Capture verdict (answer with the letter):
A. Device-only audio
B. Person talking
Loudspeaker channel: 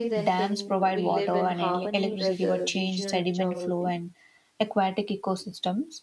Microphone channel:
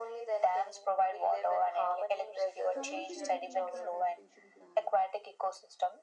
B